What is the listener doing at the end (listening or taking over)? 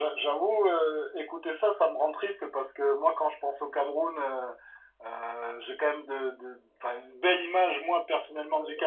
listening